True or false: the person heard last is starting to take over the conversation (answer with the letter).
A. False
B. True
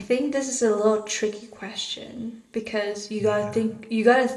A